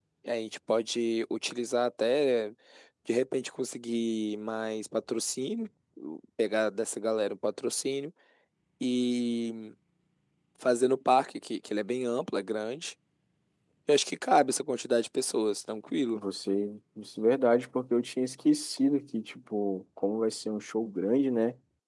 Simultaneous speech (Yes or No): No